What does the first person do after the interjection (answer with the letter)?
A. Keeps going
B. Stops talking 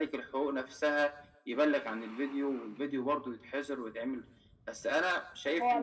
B